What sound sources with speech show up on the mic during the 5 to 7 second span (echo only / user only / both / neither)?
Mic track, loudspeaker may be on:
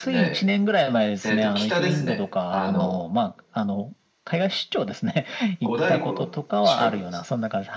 both